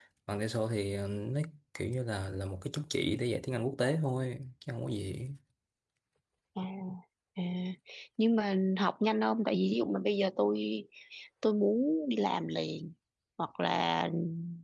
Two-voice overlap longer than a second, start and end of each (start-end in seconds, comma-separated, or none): none